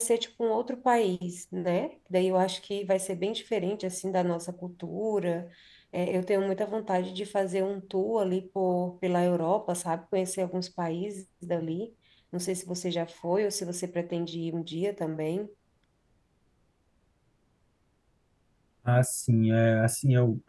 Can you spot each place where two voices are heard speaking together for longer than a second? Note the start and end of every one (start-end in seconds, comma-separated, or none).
none